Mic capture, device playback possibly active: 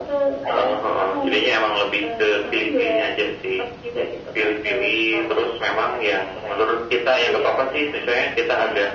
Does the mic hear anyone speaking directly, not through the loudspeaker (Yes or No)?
No